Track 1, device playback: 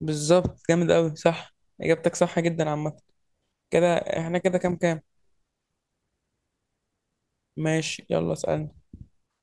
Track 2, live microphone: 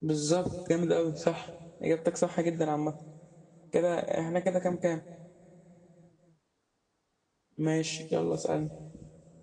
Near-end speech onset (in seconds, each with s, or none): none